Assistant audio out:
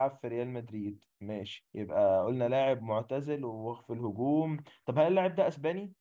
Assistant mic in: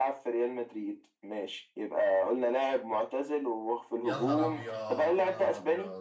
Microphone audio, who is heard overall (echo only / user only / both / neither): both